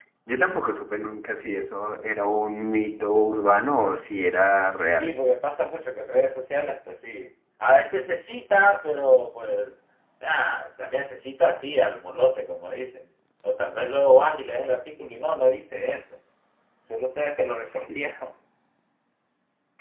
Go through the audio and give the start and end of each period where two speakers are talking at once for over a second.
none

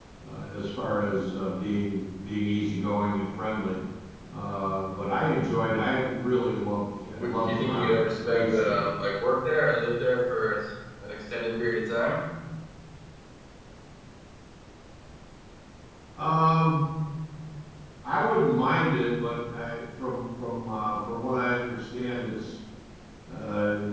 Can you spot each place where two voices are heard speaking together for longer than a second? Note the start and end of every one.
7.2-8.9

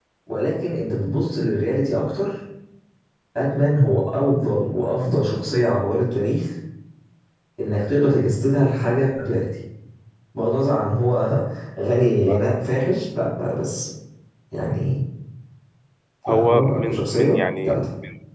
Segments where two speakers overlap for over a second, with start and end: 16.3-17.8

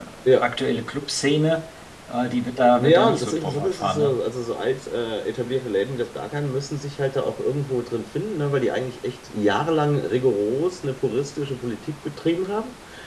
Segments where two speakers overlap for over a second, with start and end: 2.7-4.2

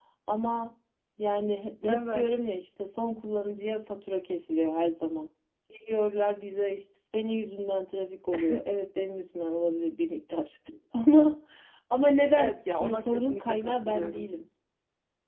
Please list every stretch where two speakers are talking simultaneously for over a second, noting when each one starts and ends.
12.4-14.3

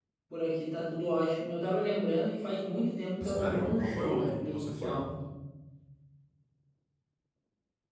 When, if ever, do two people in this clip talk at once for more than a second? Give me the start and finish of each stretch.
3.2-5.0

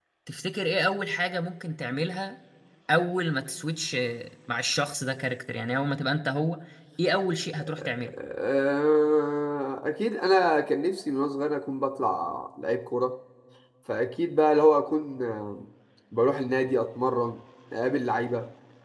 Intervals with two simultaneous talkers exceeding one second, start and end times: none

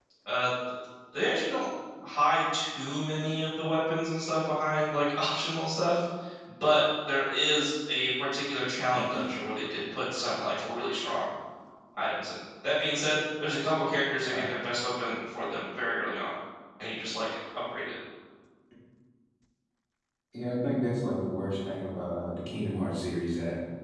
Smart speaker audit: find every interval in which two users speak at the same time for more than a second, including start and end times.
none

